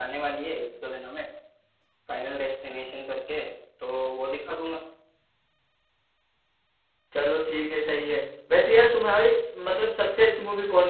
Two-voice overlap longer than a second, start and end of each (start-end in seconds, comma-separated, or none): none